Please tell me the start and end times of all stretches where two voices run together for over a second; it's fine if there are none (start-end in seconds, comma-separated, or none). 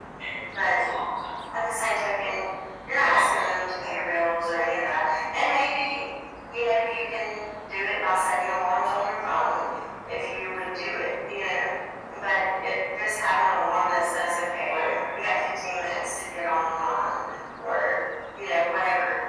none